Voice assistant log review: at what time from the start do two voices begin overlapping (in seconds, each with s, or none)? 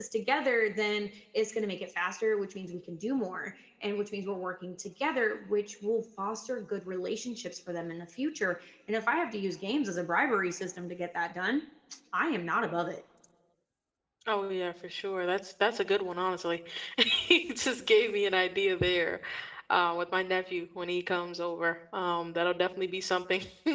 none